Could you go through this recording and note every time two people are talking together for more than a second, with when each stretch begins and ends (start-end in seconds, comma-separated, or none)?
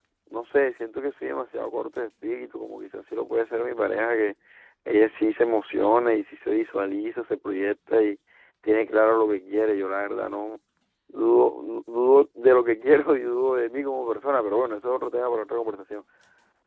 none